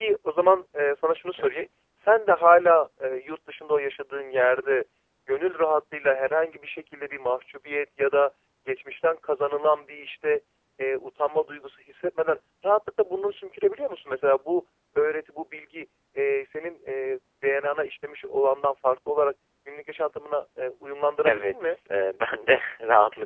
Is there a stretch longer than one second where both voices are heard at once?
No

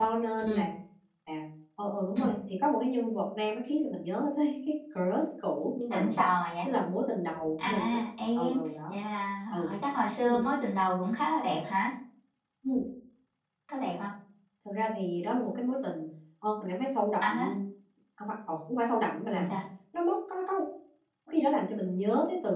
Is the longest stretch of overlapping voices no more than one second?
Yes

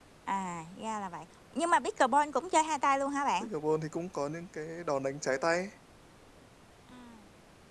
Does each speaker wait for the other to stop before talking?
Yes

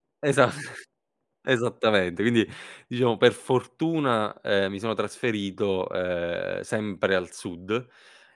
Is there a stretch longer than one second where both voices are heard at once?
No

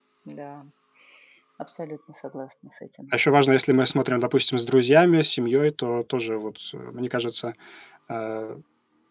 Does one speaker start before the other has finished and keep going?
No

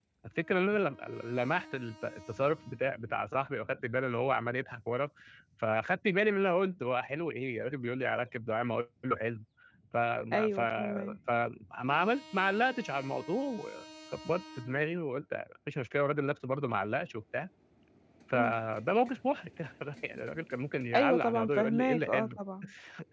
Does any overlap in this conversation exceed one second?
Yes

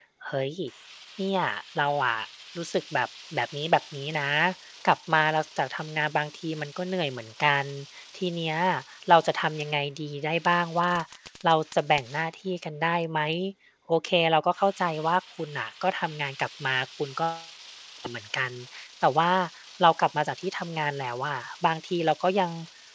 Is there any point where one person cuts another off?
No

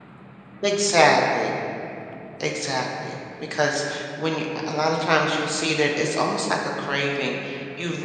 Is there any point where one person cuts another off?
No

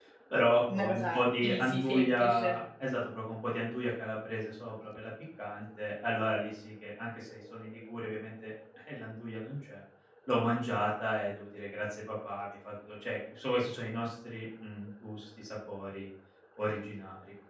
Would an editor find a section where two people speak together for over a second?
Yes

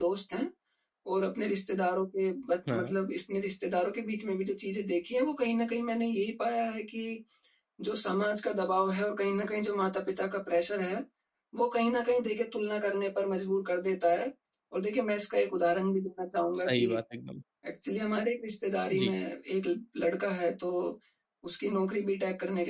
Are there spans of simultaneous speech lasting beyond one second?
No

